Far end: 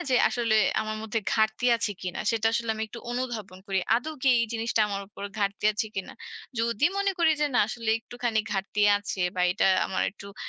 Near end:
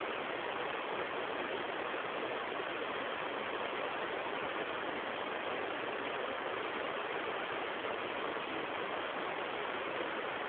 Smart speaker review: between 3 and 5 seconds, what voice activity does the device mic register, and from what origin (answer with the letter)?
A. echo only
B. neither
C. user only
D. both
B